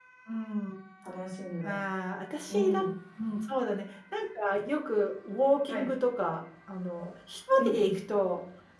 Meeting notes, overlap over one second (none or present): none